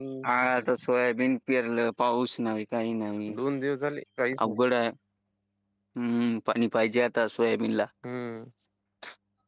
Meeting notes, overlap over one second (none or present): none